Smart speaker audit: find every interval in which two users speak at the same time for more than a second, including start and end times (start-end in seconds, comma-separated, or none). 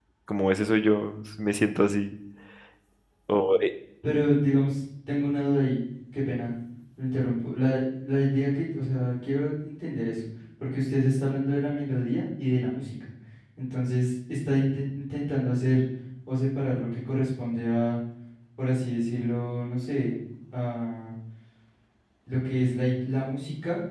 none